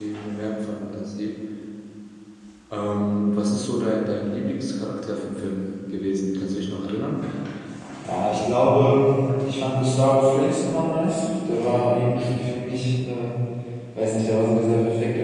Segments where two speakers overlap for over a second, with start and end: none

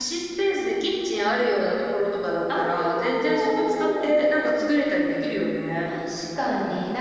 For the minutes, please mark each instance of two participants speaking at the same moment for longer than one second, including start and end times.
2.6-4.1

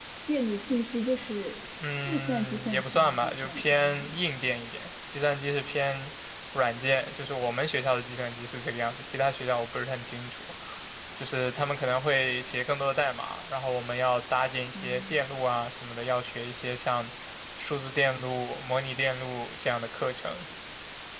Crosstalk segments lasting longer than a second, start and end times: 1.8-4.2

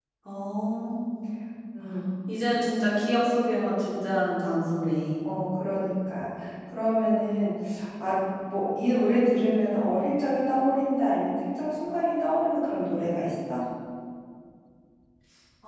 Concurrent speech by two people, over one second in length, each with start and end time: none

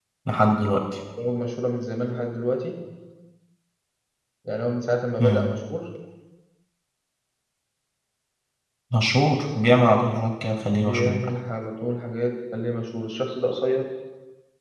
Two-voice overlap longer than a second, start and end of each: none

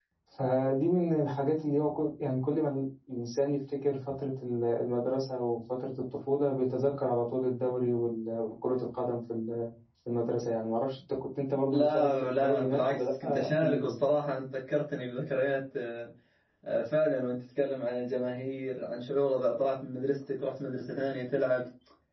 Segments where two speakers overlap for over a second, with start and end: 11.7-14.0

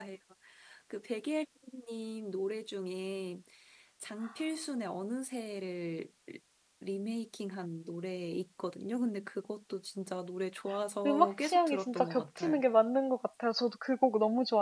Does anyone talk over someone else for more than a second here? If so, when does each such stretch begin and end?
11.1-12.6

